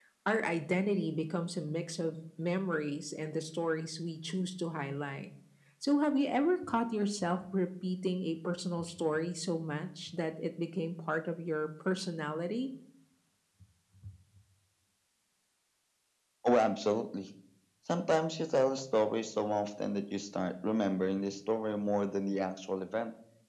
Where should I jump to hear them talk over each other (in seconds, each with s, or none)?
none